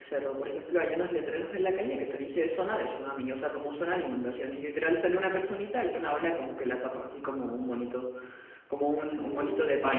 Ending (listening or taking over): listening